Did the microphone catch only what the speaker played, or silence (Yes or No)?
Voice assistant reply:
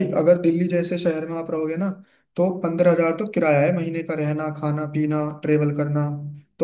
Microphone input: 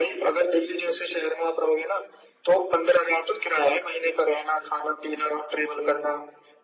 Yes